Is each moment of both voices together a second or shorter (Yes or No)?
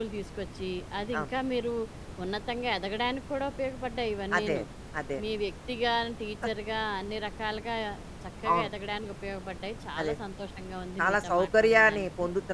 No